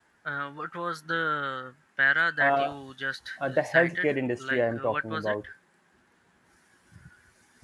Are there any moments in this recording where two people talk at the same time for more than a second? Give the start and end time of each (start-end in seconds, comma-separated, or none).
3.5-5.3